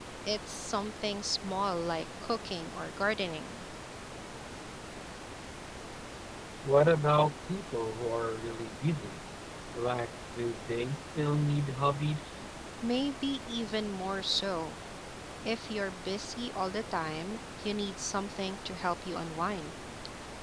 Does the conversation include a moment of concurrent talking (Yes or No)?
No